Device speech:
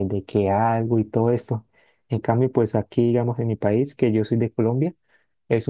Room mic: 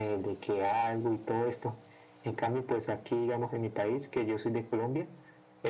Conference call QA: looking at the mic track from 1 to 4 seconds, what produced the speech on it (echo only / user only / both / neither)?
echo only